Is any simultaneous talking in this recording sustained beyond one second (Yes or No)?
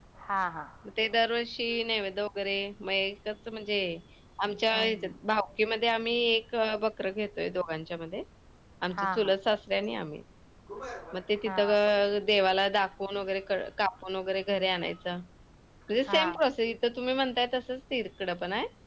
No